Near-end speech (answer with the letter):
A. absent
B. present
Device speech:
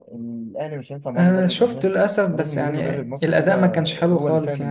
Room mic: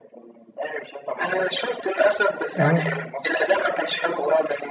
B